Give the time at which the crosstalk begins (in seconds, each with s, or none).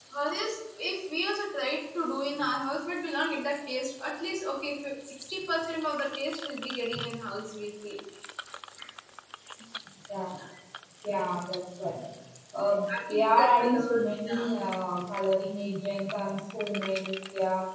13.1 s